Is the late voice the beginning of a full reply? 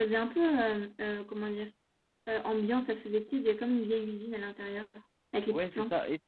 Yes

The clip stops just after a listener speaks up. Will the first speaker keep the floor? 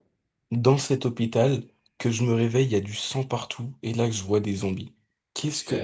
Yes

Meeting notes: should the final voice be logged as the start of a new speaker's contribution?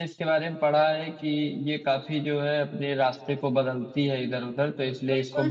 Yes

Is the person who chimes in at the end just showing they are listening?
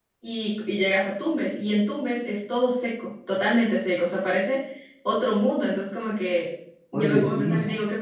Yes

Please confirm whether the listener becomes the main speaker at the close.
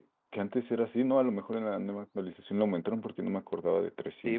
Yes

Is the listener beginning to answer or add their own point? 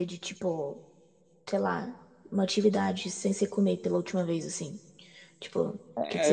Yes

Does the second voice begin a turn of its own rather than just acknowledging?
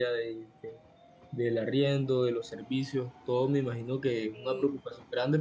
No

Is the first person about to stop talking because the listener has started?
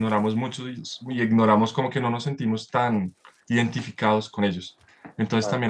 No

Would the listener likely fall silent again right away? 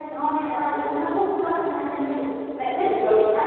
Yes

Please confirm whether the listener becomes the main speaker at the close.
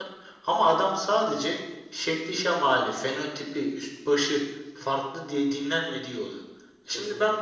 No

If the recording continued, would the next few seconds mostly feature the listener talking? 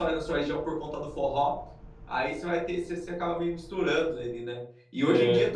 No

